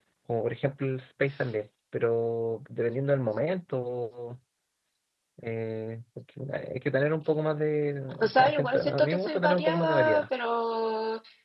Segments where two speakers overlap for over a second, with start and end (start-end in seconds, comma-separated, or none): 8.2-10.2